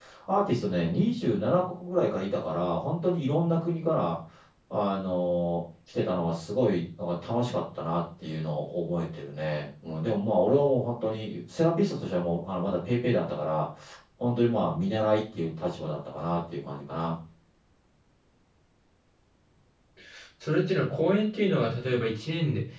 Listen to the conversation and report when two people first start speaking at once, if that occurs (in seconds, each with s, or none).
none